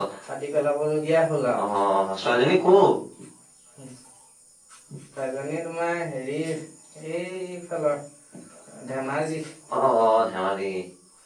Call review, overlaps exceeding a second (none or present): none